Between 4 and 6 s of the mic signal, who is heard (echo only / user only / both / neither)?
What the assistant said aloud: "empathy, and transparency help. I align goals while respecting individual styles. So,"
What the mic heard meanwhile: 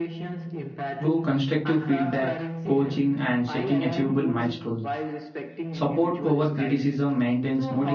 both